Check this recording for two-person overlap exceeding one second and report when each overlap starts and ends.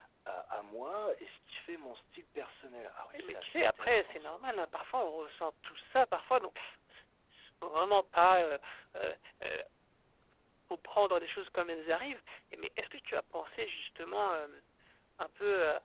3.1-4.5

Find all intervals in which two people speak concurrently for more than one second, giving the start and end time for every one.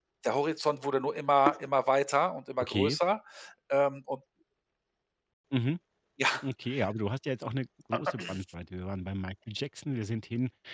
none

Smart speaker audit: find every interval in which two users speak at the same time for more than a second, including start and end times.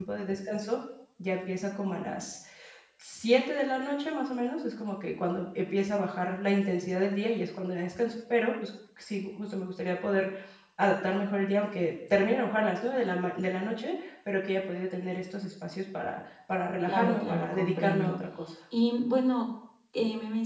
16.8-18.2

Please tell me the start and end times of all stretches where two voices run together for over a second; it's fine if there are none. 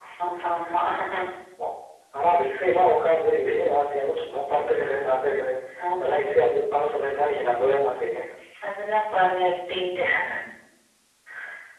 none

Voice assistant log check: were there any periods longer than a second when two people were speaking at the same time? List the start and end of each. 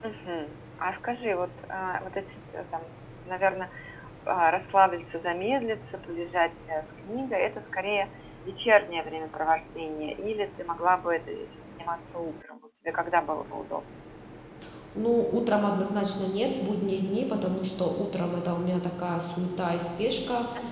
none

